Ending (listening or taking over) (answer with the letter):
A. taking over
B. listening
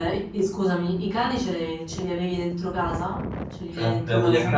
A